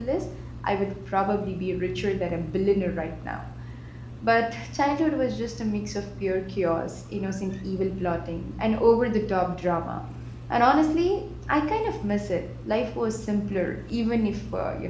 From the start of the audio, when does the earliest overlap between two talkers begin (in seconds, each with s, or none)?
none